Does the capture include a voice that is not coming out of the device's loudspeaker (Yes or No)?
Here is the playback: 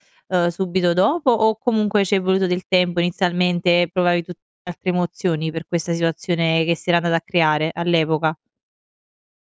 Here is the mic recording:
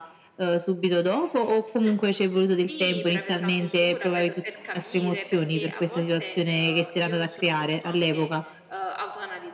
Yes